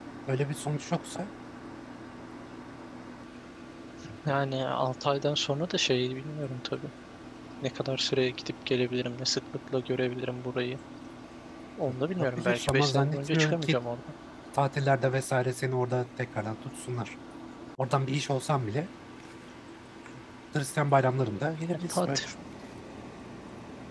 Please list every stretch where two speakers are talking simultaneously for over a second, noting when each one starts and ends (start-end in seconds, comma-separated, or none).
12.1-13.8